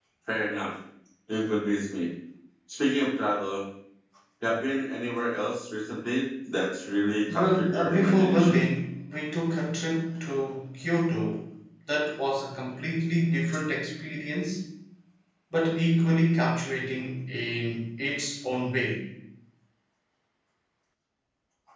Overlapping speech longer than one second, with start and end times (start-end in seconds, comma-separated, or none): 7.3-8.7